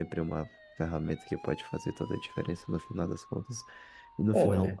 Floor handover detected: No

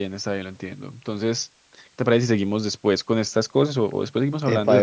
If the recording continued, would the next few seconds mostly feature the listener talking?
Yes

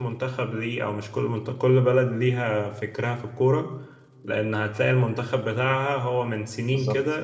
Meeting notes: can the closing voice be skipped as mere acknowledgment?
Yes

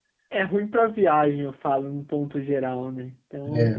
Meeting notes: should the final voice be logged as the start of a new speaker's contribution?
No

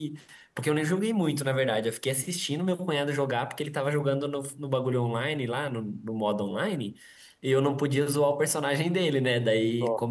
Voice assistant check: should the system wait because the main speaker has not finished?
Yes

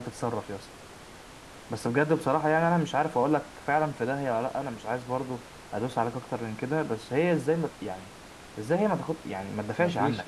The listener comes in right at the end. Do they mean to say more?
Yes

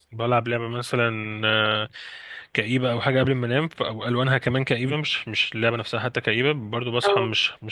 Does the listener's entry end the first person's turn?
No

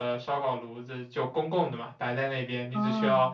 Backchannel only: Yes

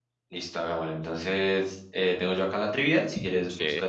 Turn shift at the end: No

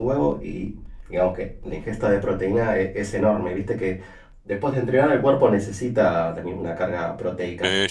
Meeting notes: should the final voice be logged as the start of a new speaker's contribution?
Yes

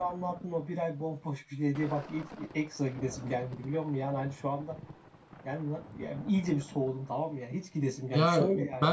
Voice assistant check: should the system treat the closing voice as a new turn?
Yes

